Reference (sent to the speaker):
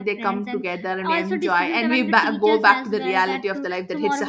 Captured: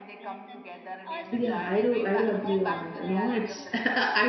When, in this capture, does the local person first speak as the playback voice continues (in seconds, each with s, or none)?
1.3 s